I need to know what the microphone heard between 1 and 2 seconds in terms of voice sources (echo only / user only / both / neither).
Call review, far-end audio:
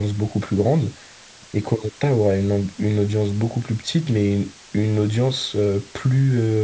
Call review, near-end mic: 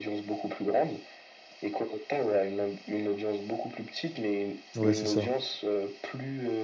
echo only